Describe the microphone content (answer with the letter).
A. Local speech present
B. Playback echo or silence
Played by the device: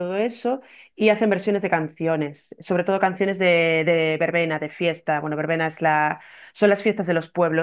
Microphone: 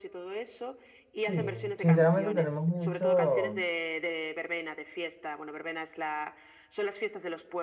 A